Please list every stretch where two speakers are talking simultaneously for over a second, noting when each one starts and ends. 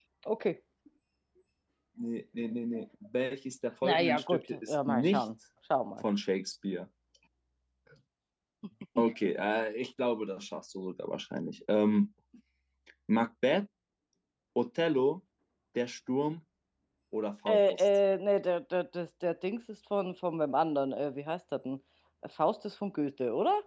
3.8-5.2

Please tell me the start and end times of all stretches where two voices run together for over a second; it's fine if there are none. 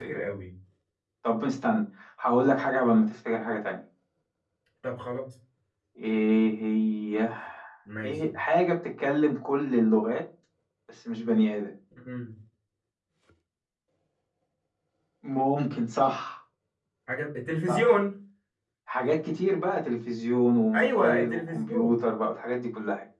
20.7-22.0

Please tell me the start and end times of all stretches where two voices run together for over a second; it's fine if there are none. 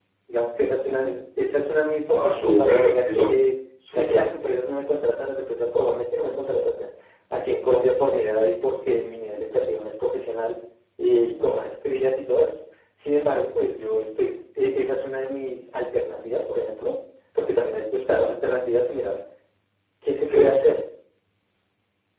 2.1-3.3

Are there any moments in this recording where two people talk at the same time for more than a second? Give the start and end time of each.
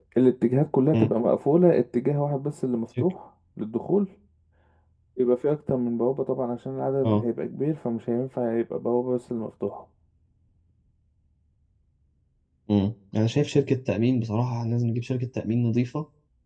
none

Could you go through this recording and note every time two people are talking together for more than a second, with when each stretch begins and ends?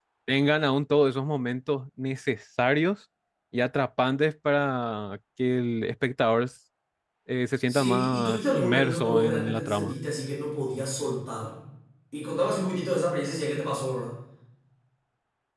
7.7-9.9

